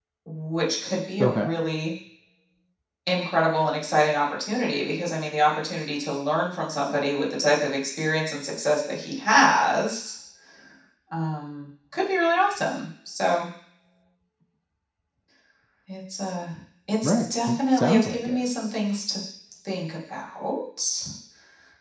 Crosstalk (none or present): present